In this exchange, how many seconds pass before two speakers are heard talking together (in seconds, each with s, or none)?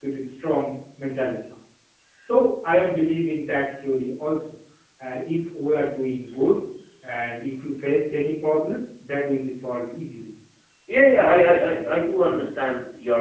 11.2 s